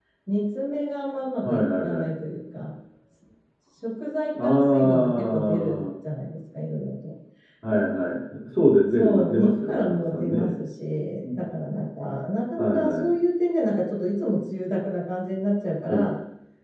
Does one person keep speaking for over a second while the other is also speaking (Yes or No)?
Yes